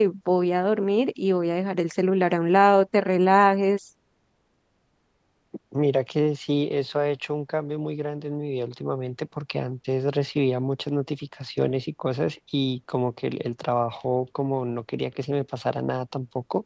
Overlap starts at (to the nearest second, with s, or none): none